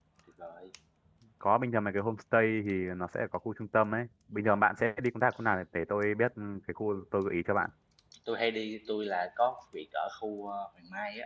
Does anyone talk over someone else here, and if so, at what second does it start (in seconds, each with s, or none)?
none